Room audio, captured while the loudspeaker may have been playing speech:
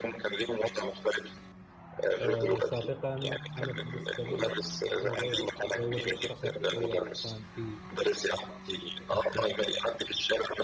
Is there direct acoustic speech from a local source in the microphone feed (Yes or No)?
Yes